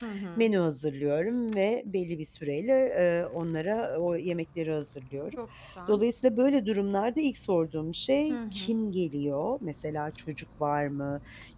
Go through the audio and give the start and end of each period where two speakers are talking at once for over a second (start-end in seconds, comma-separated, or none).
none